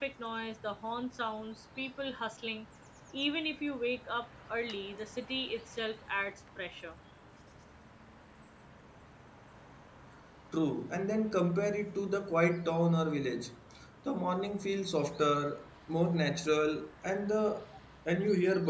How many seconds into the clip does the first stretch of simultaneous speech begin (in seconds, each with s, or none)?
none